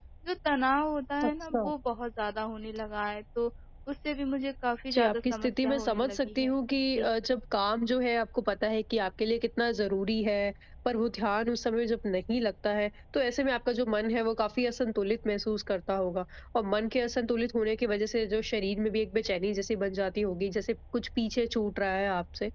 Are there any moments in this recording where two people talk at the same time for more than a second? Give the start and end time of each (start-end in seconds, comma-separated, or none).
4.9-6.5